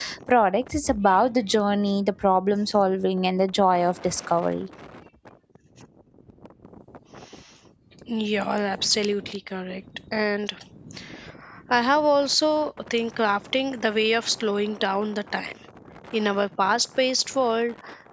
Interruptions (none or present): none